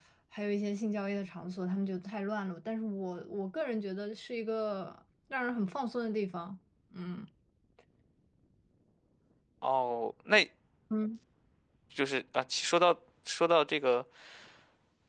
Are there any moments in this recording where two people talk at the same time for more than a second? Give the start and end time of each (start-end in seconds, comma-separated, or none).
none